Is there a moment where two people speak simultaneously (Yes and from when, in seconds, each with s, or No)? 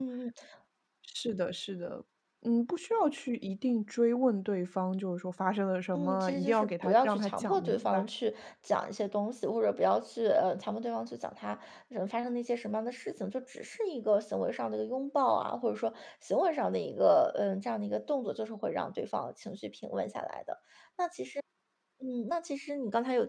Yes, from 5.9 s